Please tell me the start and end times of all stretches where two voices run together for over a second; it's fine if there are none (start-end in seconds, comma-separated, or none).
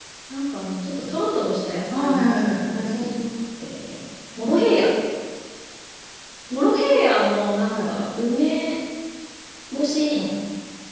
1.9-3.1